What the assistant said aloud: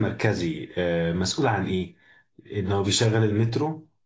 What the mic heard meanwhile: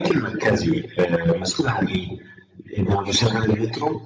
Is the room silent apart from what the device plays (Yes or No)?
Yes